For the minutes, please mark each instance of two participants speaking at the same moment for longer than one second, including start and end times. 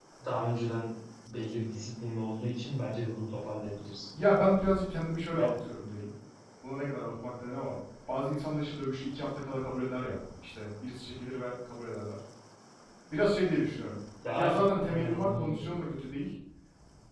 14.3-15.6

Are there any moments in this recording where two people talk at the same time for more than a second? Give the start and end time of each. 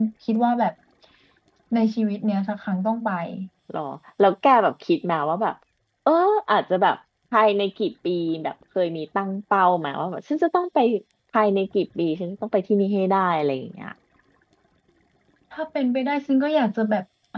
none

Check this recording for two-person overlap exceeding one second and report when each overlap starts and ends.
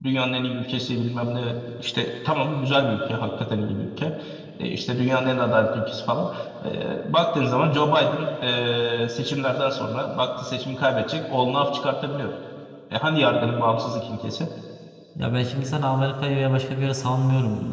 none

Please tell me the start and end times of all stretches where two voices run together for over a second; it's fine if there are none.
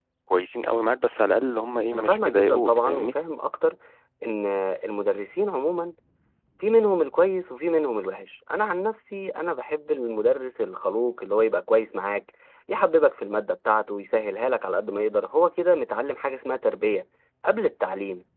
1.9-3.1

